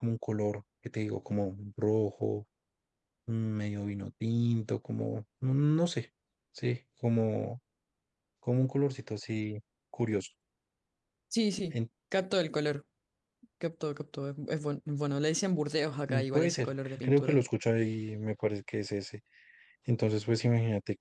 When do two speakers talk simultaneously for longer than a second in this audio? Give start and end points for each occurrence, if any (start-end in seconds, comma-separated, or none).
16.1-17.4